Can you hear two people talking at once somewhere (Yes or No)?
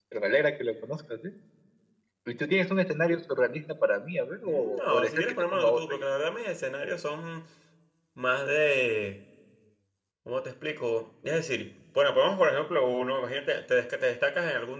Yes